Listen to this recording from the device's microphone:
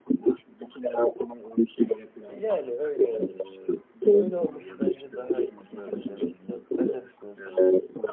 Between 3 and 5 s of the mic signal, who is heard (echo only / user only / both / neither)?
both